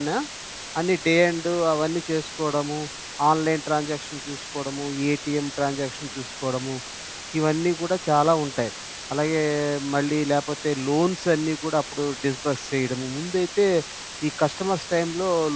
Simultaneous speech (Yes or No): No